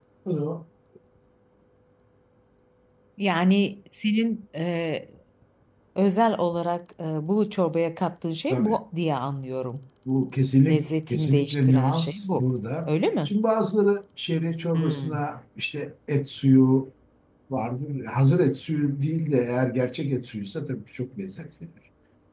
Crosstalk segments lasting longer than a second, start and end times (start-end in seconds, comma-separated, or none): 10.7-12.4